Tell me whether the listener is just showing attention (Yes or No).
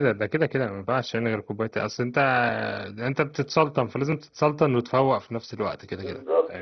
No